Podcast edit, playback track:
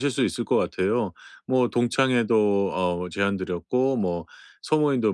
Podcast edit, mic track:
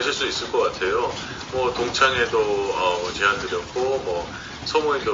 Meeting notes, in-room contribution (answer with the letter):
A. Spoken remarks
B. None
B